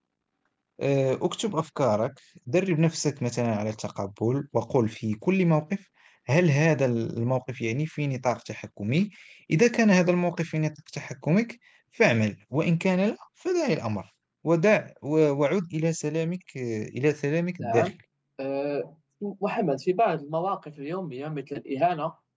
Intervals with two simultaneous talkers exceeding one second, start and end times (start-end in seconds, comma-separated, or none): none